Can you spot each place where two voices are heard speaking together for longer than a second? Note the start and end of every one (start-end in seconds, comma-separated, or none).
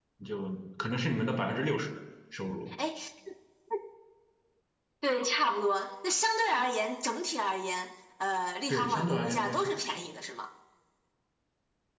8.7-10.0